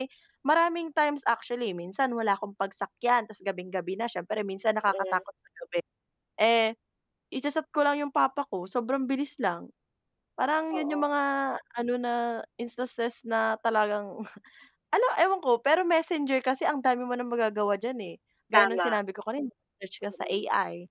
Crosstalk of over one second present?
No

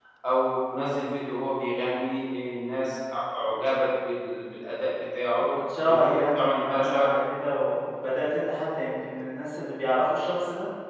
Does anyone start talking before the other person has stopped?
Yes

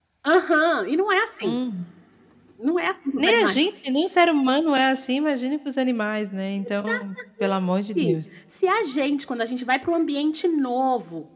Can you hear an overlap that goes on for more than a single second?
No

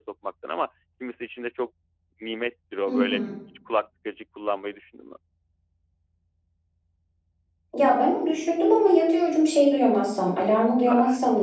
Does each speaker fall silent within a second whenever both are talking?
Yes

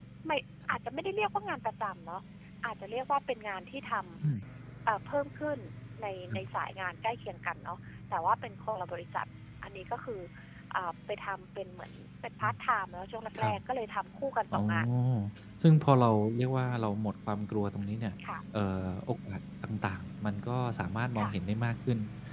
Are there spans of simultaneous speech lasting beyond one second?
No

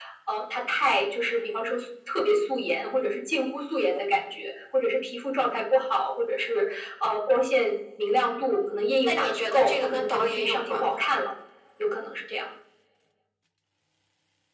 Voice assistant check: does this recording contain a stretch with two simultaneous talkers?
Yes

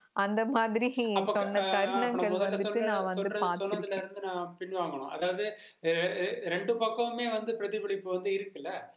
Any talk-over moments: Yes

